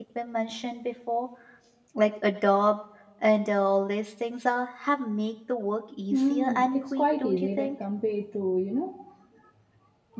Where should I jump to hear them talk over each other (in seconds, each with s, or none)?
6.1 s